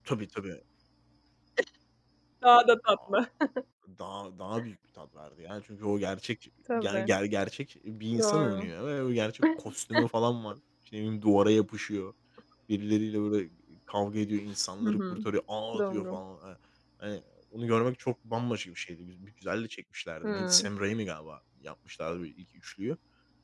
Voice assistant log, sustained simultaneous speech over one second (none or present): none